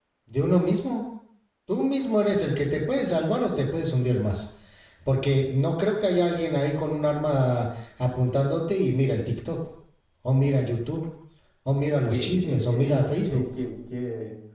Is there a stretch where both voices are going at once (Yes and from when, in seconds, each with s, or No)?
Yes, from 12.0 s